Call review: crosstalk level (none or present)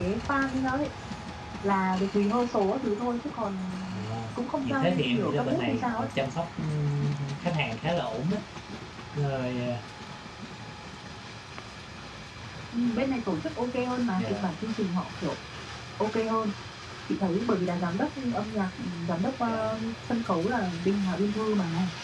present